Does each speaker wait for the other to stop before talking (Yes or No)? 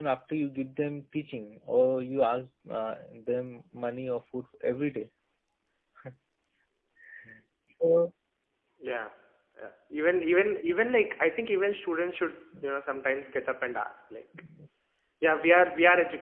Yes